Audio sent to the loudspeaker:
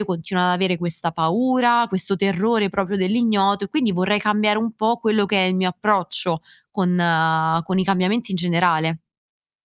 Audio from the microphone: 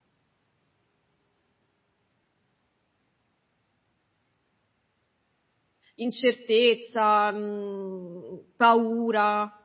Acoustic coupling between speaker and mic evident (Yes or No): No